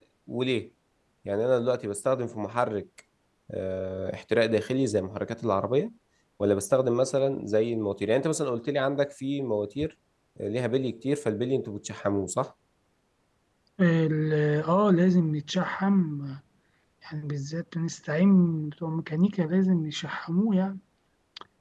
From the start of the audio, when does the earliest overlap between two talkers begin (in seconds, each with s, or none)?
none